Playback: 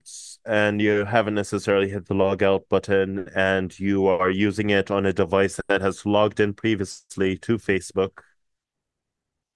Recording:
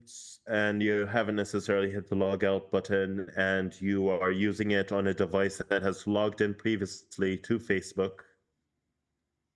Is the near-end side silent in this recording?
Yes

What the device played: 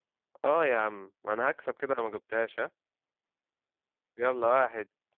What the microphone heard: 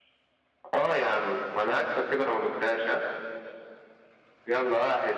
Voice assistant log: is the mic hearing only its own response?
Yes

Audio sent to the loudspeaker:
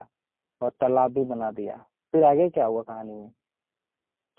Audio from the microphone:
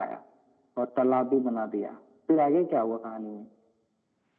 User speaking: No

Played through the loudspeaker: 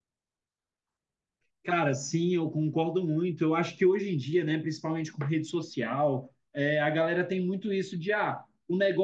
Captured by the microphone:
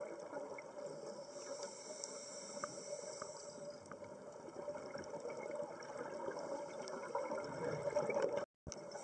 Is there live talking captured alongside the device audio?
No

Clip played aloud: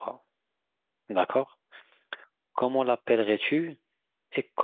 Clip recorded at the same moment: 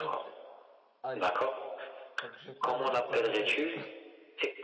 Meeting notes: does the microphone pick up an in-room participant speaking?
Yes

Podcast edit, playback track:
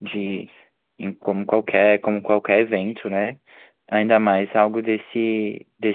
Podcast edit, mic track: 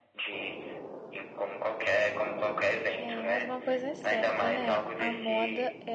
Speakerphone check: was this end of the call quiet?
No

